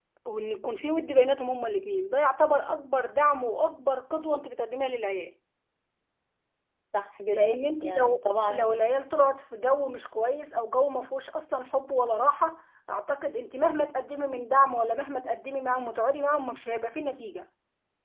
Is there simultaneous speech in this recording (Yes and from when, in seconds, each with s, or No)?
Yes, from 7.3 s